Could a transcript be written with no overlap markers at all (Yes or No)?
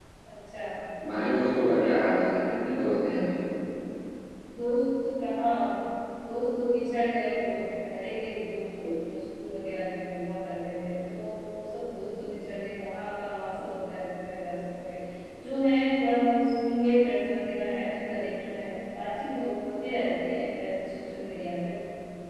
Yes